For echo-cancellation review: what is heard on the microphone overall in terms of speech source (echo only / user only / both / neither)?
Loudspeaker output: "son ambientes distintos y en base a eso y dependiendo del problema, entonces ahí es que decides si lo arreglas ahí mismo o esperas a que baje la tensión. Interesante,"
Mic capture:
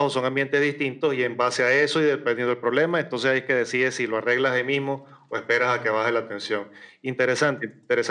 echo only